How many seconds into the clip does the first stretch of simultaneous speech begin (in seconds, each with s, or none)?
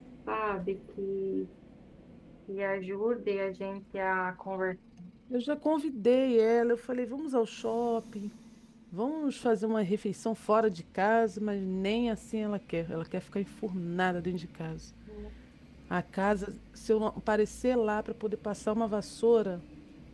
none